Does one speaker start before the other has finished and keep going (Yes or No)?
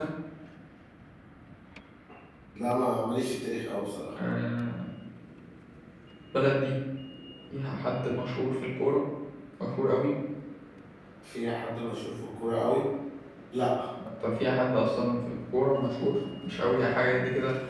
No